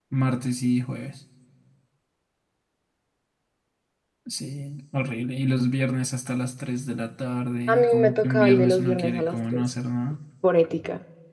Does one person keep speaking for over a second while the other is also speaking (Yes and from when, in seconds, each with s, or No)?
Yes, from 7.7 s